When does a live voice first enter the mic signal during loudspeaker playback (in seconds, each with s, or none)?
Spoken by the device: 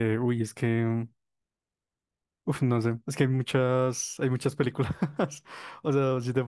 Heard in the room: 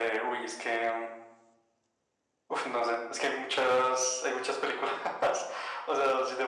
none